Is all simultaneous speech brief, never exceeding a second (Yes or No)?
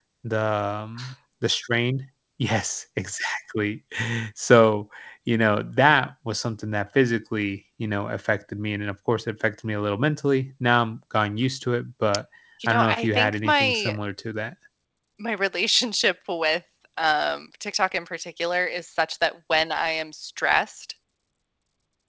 No